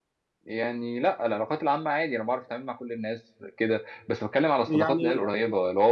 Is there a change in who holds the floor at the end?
No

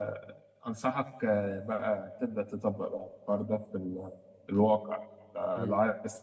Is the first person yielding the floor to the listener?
No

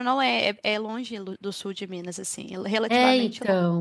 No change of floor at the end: No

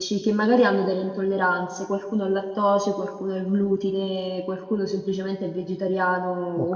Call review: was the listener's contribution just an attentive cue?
Yes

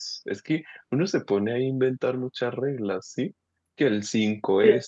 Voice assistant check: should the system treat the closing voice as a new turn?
No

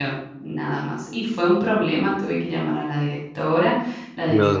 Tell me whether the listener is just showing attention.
Yes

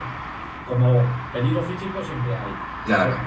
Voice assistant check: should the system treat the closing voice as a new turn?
No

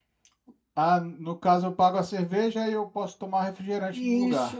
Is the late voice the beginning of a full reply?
Yes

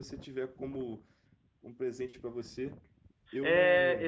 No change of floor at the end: No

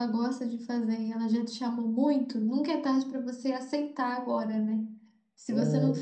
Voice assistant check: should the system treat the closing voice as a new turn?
No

